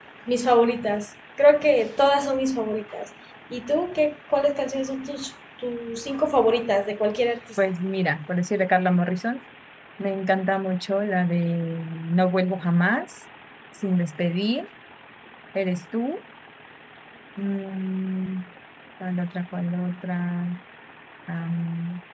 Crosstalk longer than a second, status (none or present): none